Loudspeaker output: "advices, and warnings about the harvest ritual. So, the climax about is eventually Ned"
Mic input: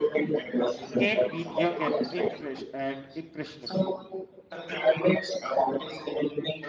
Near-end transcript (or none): Kate, being young and impress- and impressionable,